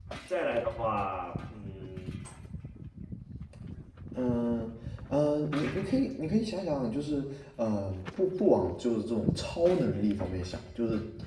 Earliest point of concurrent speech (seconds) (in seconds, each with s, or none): none